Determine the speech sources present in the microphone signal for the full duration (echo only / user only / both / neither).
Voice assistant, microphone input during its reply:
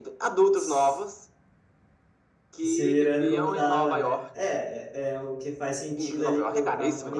both